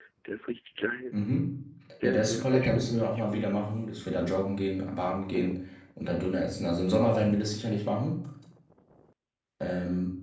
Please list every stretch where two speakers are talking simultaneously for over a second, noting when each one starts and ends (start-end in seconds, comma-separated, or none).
2.0-3.6